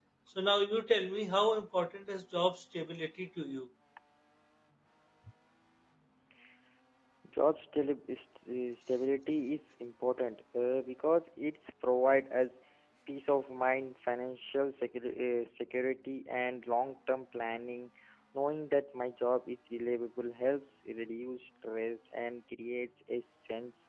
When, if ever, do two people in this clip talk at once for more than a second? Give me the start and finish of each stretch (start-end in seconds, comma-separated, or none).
none